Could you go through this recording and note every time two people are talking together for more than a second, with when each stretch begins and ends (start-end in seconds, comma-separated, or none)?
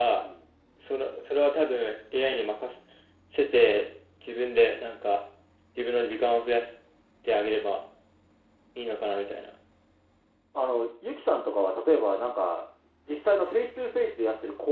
none